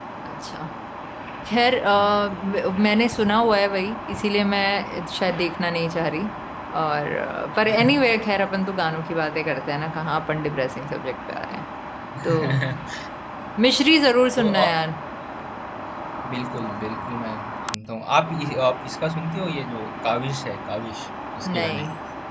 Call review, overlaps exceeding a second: none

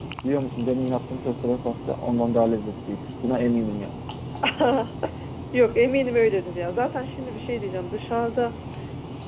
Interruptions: none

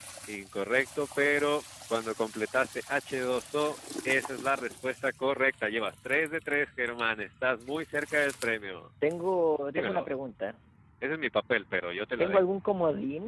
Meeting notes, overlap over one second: none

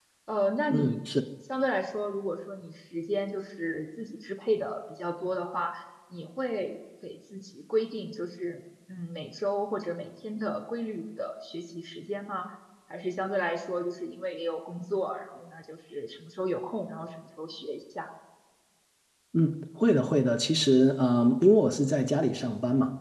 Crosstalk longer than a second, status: none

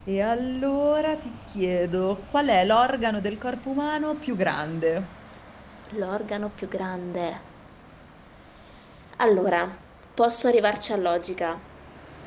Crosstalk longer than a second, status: none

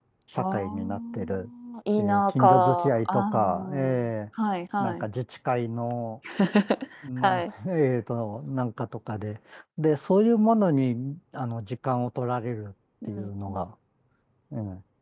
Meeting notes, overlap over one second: present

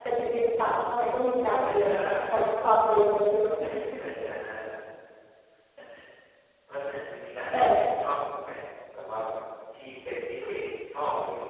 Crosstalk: present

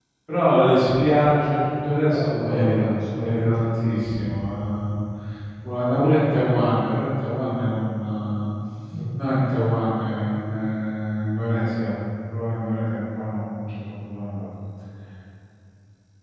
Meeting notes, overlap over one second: present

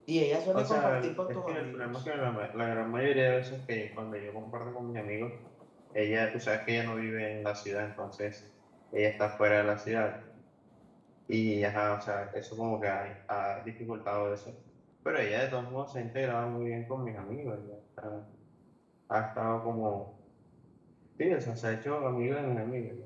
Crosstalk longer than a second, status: present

